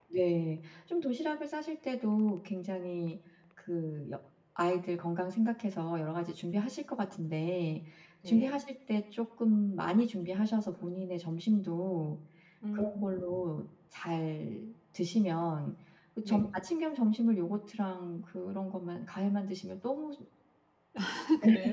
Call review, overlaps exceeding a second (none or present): none